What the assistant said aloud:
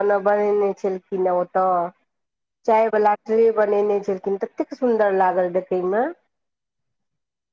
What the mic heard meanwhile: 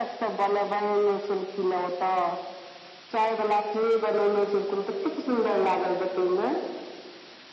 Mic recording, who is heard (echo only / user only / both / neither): echo only